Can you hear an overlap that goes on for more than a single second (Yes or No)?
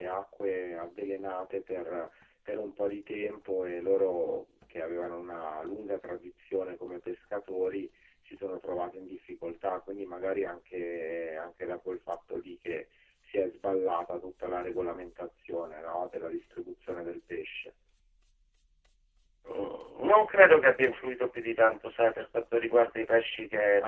No